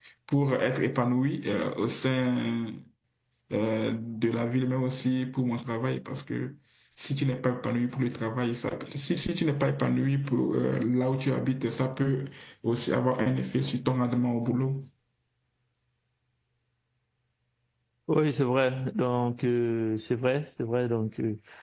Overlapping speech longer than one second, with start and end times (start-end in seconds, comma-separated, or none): none